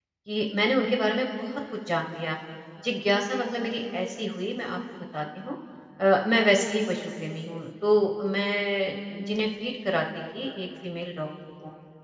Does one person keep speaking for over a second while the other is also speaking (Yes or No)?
No